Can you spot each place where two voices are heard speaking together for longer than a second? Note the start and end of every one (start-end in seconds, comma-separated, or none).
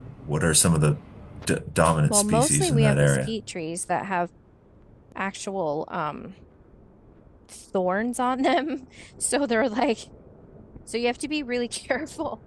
2.1-3.3